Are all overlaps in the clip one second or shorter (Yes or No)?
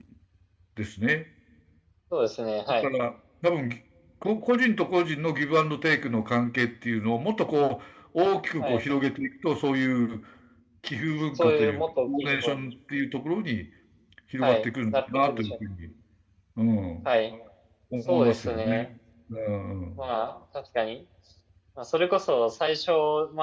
No